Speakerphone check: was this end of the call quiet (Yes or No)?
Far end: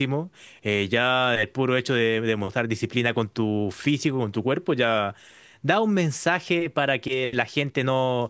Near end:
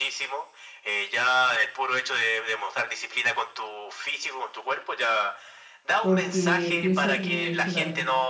No